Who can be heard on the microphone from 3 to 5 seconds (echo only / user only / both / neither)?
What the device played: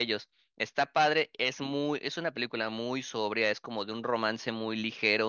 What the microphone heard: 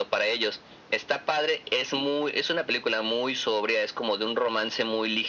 echo only